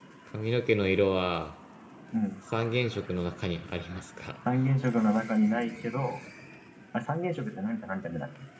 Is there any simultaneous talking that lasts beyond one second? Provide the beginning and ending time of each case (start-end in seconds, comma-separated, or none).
none